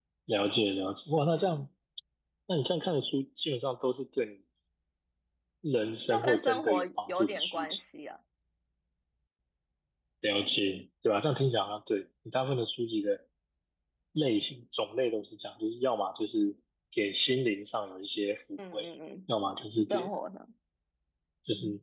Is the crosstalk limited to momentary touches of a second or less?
No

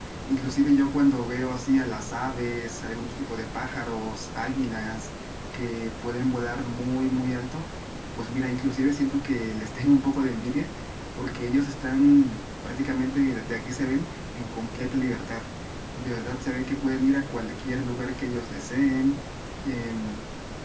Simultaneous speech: No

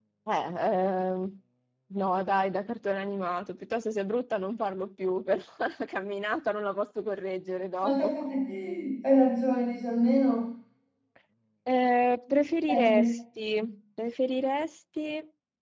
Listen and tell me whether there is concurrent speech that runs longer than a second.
No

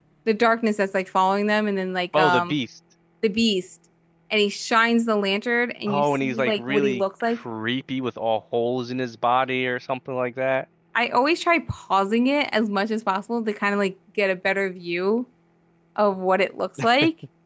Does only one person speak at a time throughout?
No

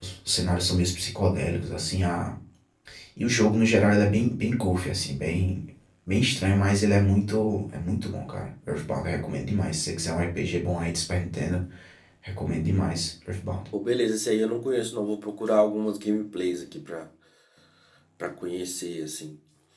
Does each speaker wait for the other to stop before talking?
Yes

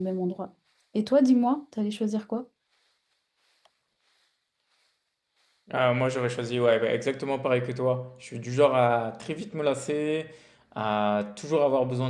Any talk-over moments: No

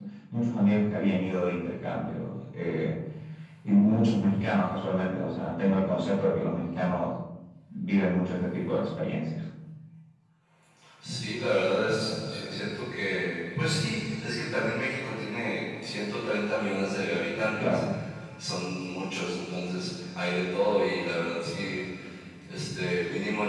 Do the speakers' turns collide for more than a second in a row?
No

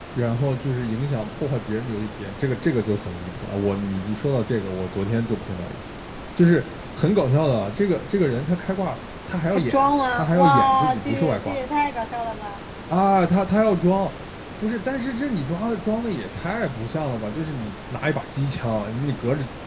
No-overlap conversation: No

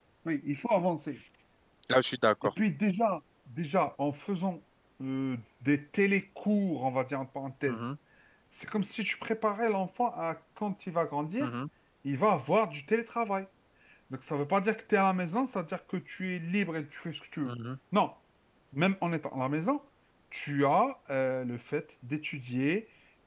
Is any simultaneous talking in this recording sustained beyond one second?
No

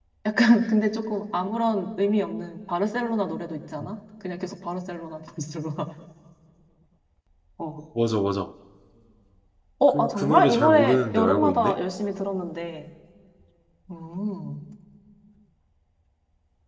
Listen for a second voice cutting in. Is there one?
Yes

